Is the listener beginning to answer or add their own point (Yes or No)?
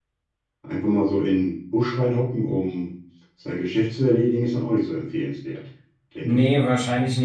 Yes